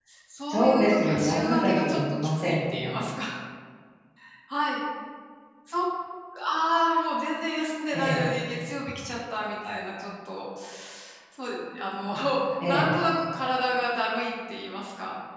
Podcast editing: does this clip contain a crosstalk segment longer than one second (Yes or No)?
Yes